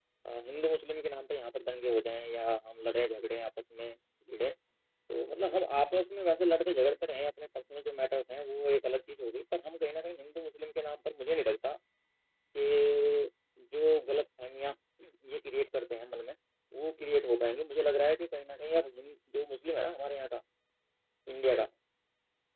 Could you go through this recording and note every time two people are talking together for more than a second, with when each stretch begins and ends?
none

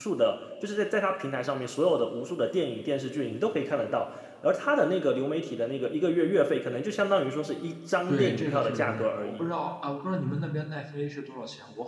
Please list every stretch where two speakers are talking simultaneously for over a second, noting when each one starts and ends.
8.1-9.4

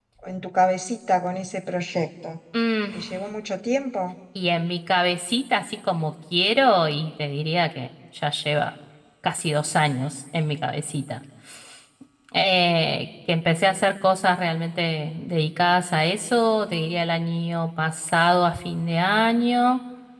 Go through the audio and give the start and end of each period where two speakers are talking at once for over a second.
none

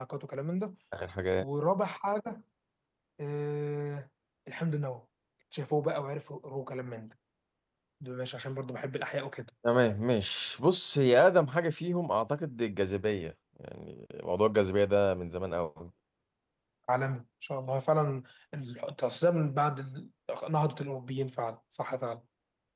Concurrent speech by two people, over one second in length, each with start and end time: none

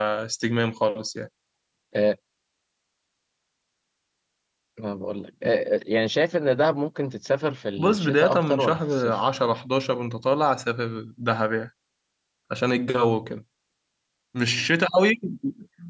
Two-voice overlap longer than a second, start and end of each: 7.8-9.2

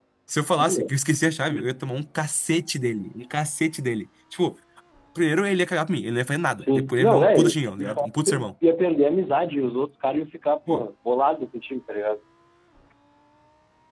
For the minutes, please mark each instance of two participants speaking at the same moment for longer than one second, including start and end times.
6.5-8.4

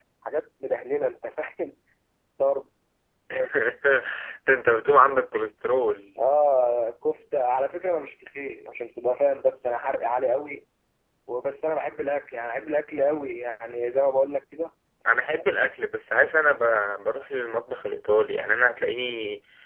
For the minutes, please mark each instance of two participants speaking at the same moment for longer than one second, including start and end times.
none

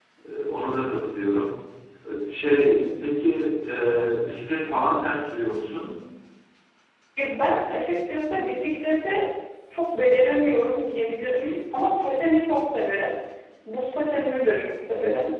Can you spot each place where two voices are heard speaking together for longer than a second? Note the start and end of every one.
none

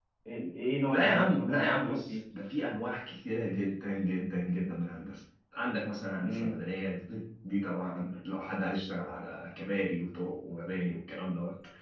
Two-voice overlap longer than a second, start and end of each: 0.9-2.1

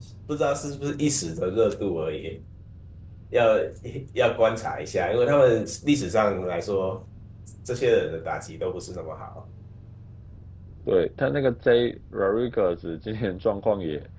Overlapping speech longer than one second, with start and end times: none

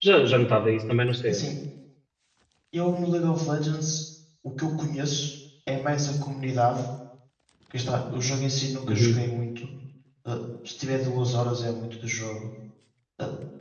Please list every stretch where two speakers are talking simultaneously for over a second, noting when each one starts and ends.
none

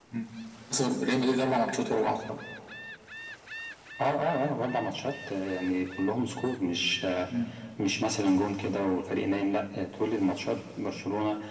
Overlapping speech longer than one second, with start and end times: none

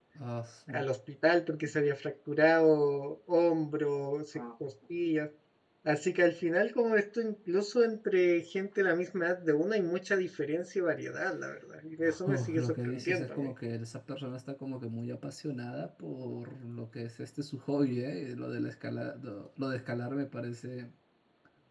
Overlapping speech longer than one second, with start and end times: 12.2-13.5

